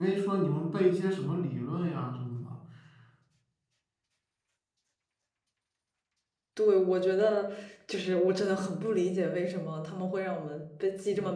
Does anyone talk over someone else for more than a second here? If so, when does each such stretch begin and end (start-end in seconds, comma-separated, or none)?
none